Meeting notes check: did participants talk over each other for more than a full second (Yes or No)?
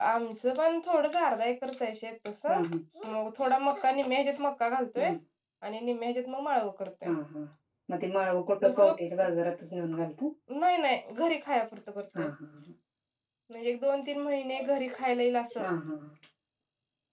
No